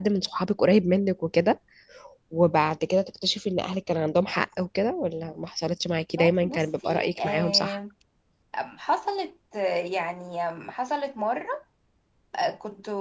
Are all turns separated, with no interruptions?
No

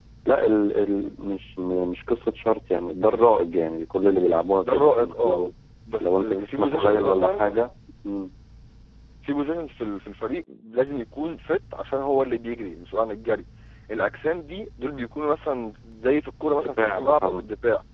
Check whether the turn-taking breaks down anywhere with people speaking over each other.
Yes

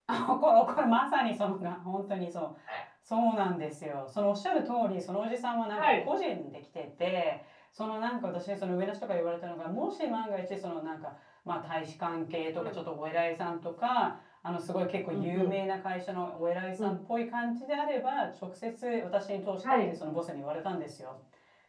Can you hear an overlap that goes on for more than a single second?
No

